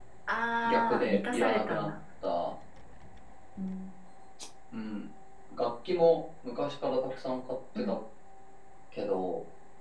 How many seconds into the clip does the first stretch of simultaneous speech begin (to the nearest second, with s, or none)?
1 s